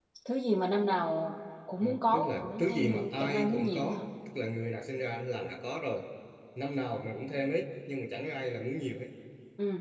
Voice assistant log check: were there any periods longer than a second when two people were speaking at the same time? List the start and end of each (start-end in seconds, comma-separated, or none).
1.8-4.0